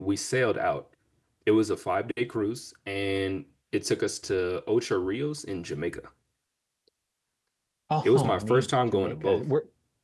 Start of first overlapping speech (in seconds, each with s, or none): 8.0 s